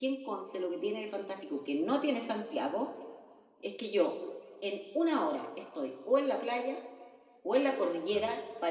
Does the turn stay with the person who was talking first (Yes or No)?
Yes